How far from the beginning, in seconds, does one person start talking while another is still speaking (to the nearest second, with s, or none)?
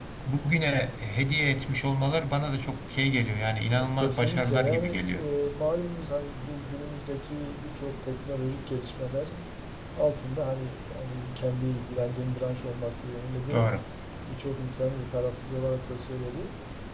4 s